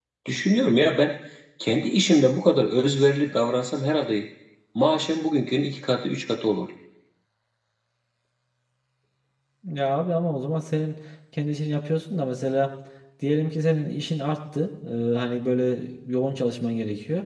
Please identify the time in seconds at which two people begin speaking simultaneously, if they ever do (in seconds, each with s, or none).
none